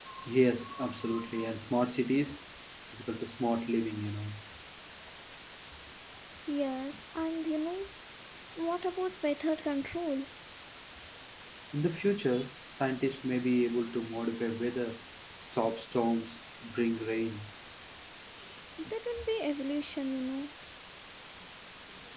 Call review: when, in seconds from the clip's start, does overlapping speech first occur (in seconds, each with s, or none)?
none